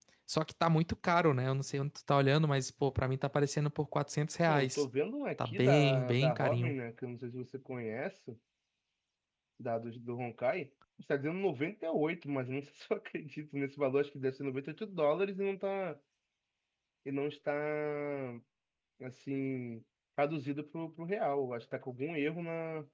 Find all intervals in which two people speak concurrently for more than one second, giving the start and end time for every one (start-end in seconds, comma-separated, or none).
5.5-6.7